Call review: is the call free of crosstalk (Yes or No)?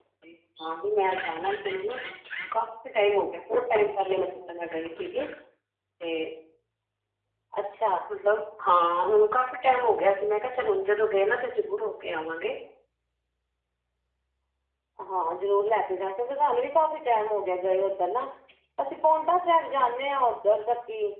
Yes